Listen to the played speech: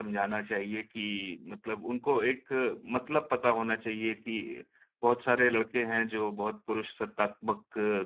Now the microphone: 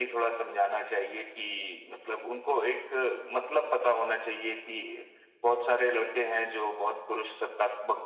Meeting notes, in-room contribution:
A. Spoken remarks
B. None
B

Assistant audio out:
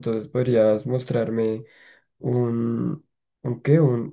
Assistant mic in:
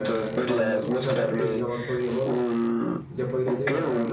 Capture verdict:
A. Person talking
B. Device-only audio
A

